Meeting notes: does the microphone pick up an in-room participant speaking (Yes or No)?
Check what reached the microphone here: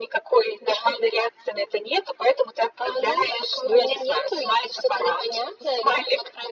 No